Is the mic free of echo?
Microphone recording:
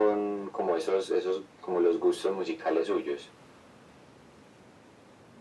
No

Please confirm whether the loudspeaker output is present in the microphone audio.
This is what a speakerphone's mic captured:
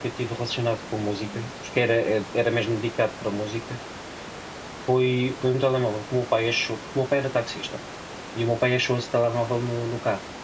No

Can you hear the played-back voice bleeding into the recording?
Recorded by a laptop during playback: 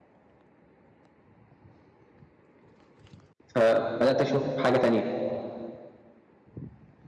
No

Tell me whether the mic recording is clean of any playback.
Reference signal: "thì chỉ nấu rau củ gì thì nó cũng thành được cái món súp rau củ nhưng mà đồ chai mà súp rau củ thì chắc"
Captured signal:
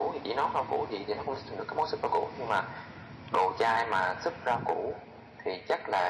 No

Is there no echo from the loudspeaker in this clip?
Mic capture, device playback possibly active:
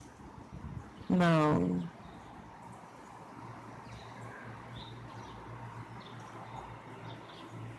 Yes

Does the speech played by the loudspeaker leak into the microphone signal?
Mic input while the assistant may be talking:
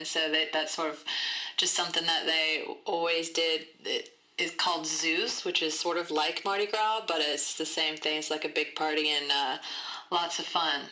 Yes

